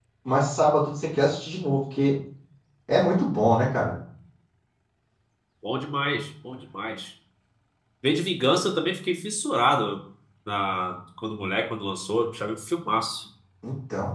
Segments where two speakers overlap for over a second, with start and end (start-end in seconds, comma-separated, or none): none